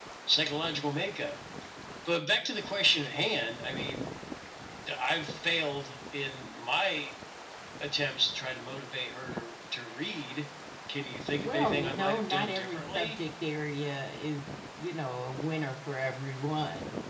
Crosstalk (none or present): present